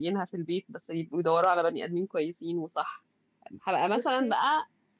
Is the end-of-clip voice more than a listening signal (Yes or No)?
No